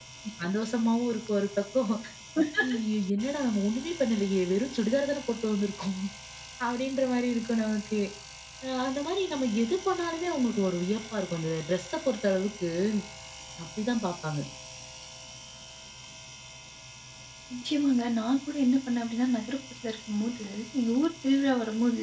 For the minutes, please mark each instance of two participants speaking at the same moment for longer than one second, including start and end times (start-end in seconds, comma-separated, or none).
none